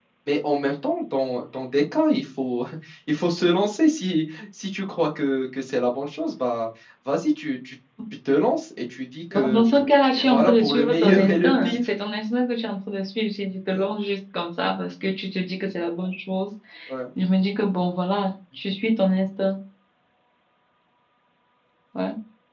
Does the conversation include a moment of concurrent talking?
Yes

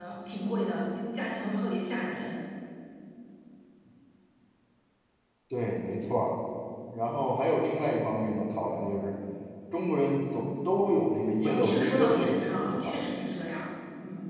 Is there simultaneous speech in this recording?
Yes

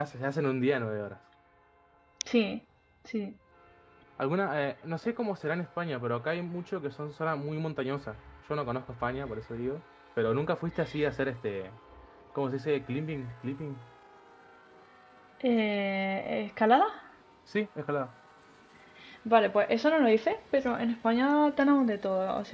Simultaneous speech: No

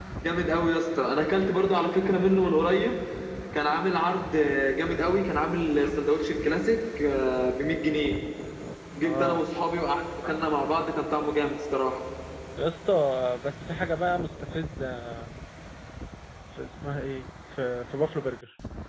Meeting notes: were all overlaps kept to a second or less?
Yes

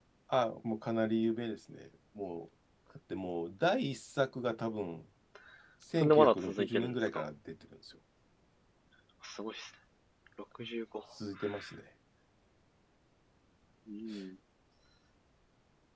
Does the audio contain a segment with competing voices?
Yes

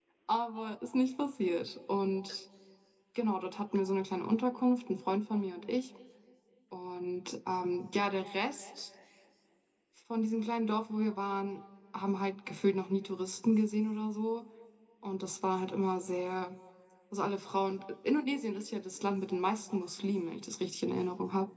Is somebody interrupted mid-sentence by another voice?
No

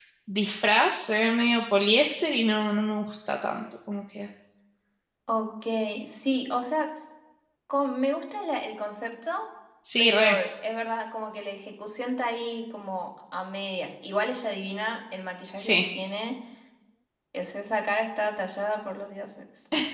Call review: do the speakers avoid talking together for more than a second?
Yes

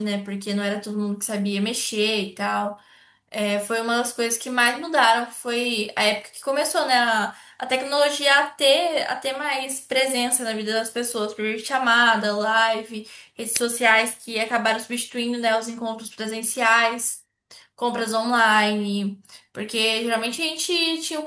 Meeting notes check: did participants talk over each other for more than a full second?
No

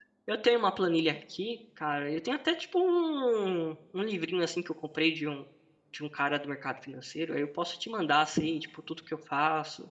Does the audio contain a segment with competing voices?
No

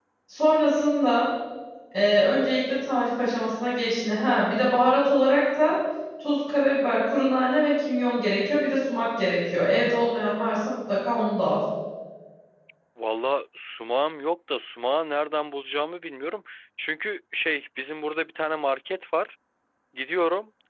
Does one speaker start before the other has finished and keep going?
No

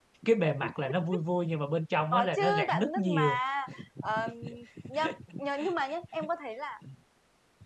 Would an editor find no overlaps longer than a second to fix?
No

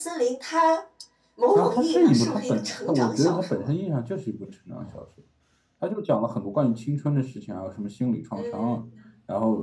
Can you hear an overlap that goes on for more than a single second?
Yes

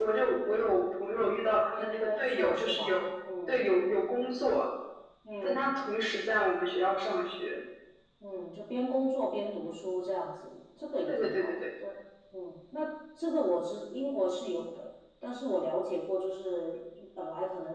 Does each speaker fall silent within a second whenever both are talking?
No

